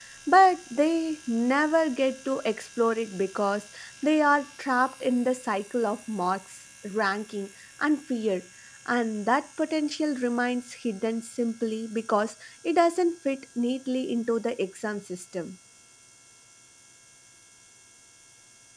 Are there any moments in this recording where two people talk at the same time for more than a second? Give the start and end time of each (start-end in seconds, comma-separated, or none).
none